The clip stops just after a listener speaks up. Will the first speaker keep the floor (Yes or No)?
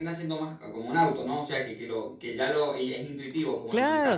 No